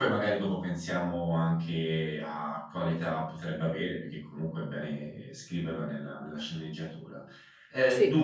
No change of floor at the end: Yes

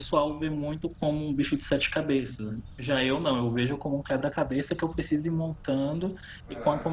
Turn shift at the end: No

